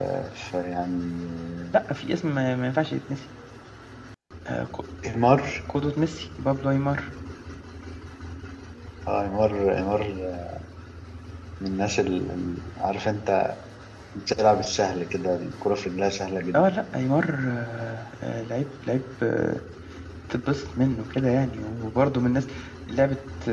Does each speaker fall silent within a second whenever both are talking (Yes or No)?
Yes